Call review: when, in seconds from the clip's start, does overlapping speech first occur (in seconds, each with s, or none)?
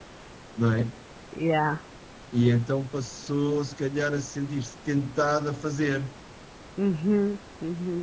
none